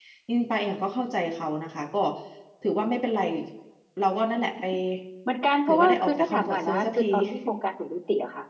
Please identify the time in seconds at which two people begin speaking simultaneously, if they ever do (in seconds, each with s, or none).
5.7 s